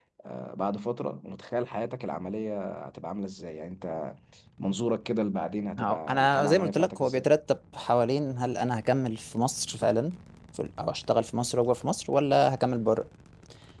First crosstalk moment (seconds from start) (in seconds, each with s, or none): 5.8 s